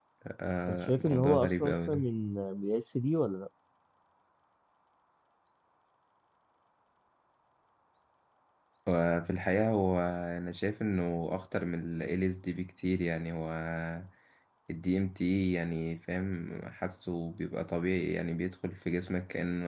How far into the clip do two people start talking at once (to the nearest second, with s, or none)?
1 s